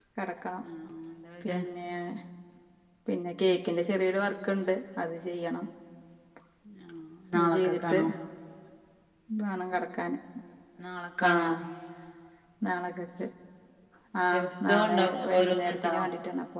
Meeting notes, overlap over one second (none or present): present